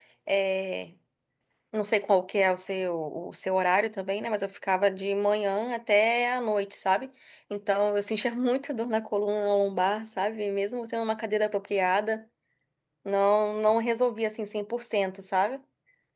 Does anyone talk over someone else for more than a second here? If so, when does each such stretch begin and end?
none

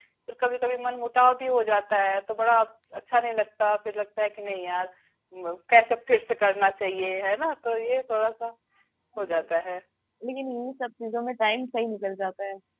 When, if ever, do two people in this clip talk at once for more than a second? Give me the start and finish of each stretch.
none

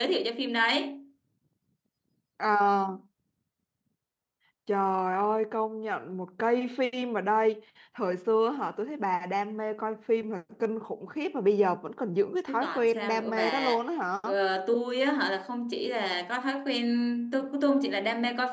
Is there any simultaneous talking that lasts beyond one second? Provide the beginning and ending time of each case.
12.5-13.8

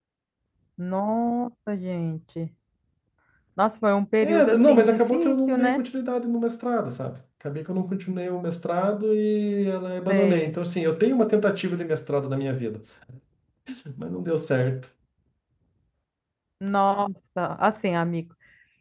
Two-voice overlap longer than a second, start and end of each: 4.2-5.8

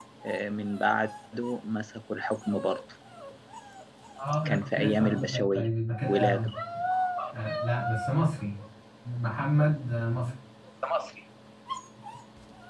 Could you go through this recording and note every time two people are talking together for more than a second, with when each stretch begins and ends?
4.5-5.7

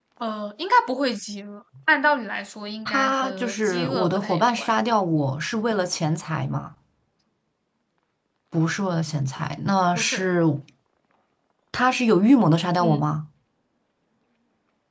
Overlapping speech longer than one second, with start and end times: 2.8-4.7

